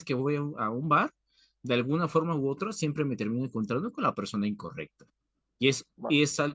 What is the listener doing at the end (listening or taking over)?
listening